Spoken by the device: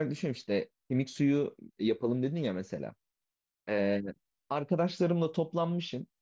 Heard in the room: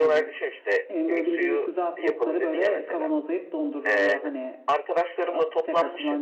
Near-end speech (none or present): present